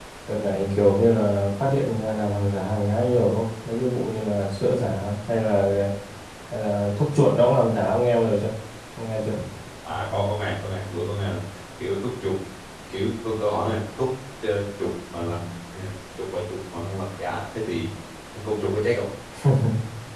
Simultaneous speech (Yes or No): No